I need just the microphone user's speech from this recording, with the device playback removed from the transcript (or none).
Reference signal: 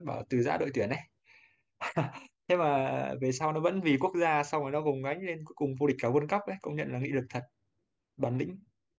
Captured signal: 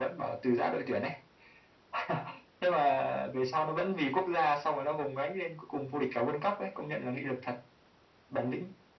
none